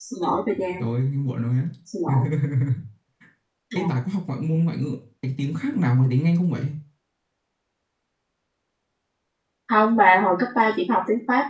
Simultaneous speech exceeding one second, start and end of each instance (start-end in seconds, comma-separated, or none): none